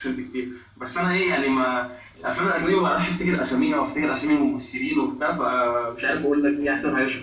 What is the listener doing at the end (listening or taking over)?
taking over